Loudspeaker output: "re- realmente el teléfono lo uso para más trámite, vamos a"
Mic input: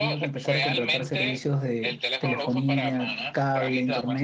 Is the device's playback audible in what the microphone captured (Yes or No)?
Yes